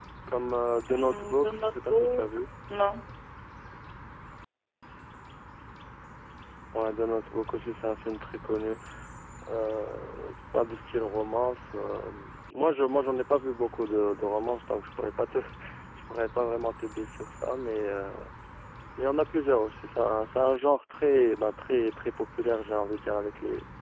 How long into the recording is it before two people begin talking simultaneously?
0.9 s

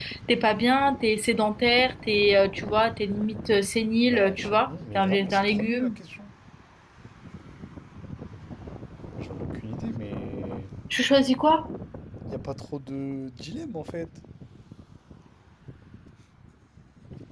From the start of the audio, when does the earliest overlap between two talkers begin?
4.1 s

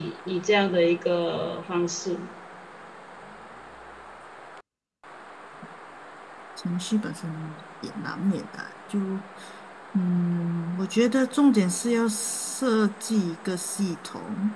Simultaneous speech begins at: none

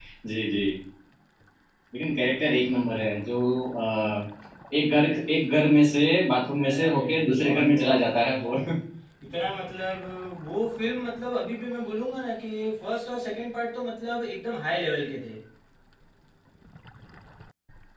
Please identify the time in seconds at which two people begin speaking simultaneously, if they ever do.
6.6 s

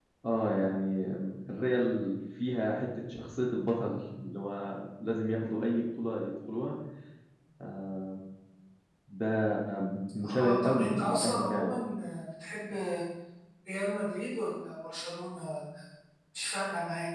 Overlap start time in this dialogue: 10.4 s

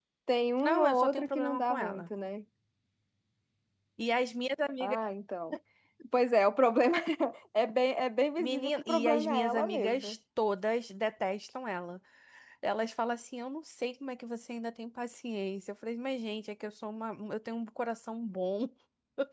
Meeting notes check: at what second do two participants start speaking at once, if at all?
0.6 s

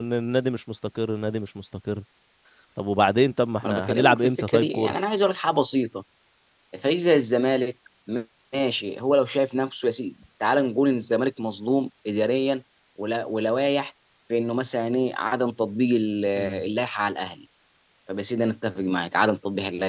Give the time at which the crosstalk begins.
3.6 s

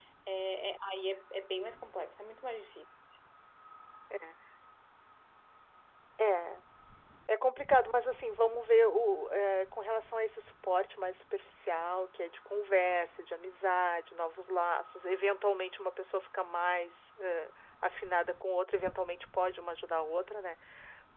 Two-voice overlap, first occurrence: none

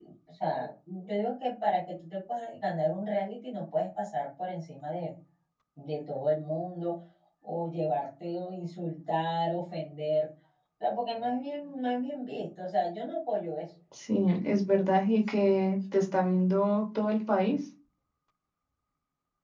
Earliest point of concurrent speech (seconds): none

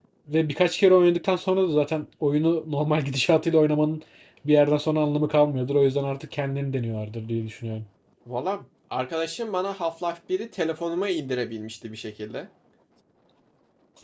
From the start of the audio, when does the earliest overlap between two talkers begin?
none

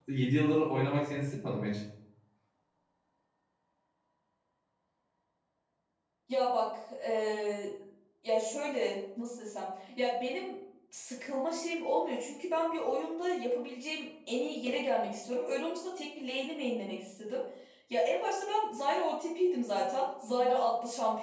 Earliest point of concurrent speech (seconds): none

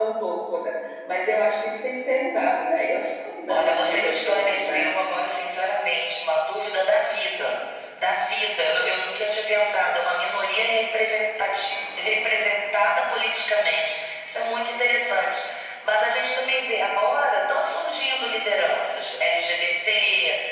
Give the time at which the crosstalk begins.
3.5 s

